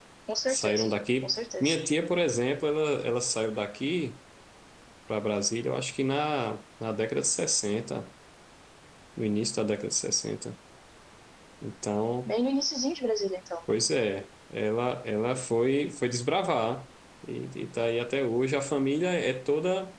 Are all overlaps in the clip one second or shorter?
Yes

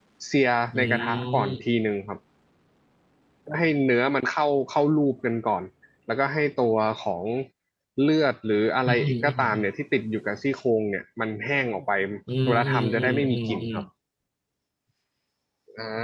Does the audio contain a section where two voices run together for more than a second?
Yes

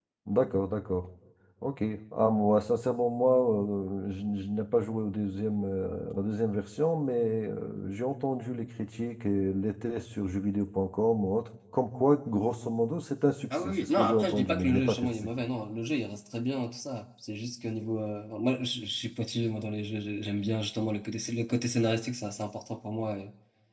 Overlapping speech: Yes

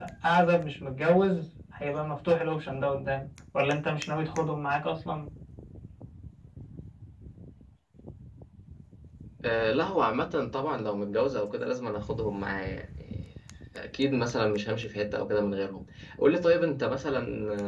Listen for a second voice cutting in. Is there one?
No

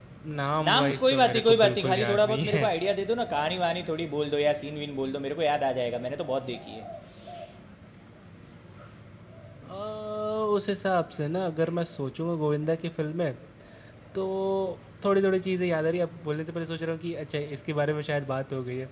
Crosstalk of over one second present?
Yes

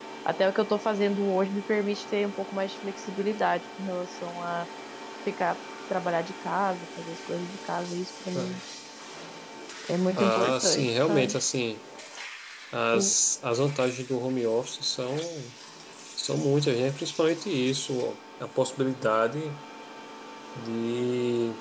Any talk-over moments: Yes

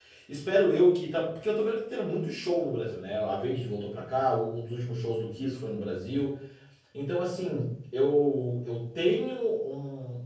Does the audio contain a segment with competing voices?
No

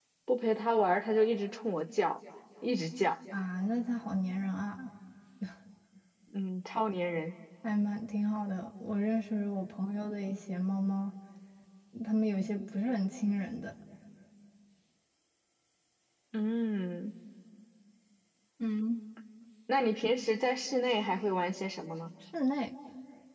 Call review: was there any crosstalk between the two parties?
No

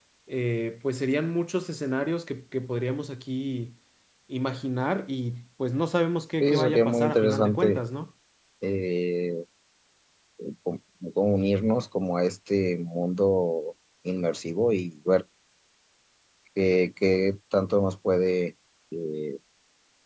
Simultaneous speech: Yes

